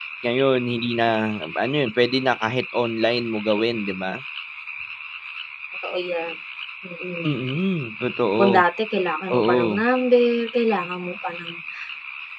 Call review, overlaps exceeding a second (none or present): none